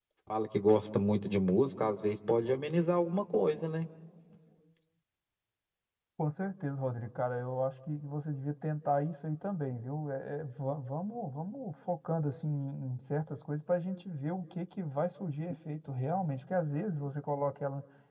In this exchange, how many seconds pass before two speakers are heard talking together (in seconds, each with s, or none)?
none